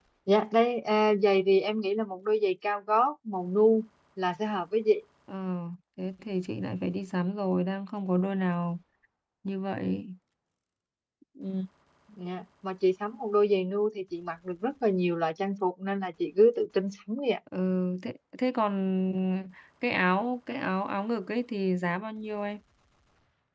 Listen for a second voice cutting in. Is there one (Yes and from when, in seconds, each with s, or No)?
No